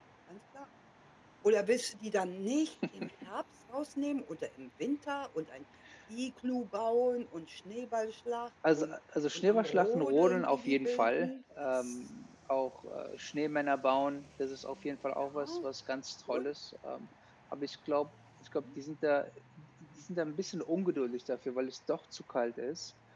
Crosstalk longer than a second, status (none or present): present